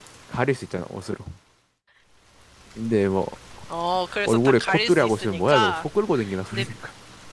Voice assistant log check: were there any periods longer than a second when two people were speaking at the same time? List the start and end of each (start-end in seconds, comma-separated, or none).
4.3-5.8